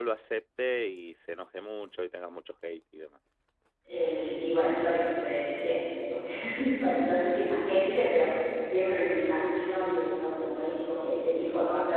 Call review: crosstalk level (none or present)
none